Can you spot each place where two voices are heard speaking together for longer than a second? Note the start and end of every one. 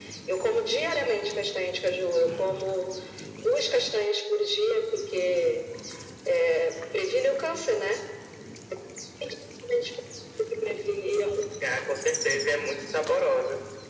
none

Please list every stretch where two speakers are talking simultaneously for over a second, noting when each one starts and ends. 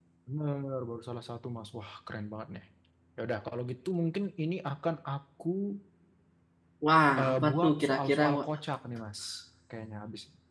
7.2-8.4

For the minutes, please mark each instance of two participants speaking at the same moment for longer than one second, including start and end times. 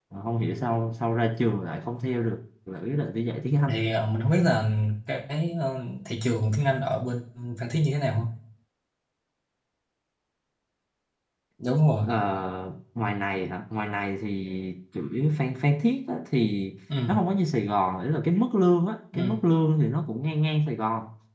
none

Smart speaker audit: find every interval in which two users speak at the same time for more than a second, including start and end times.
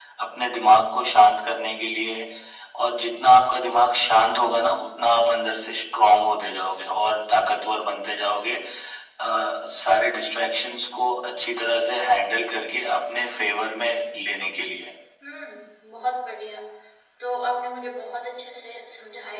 none

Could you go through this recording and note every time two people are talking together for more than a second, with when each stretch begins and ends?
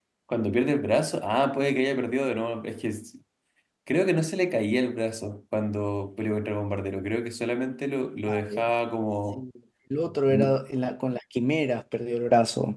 none

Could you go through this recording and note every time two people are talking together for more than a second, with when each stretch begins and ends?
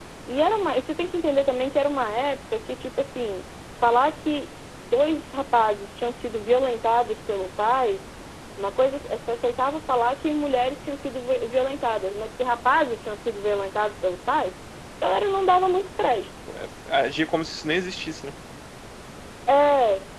none

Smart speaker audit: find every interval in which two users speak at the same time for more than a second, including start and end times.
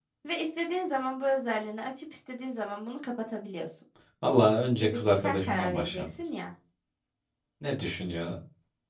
4.8-6.2

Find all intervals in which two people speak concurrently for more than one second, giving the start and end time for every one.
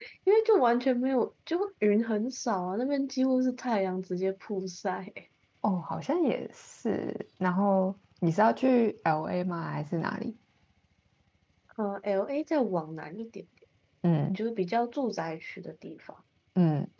none

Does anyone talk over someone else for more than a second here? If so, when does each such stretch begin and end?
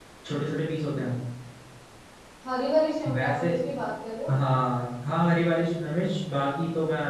none

